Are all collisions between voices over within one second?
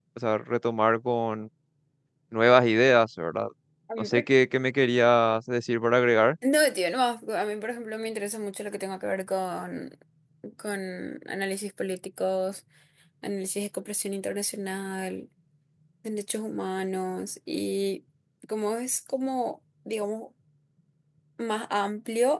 Yes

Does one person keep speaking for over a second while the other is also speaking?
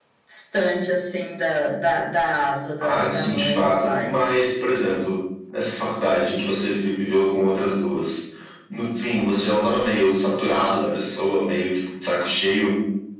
Yes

